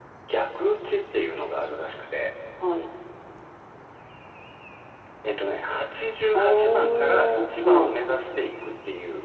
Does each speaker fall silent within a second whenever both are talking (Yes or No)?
No